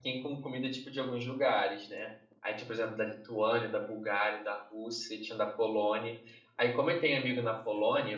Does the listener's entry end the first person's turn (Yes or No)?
No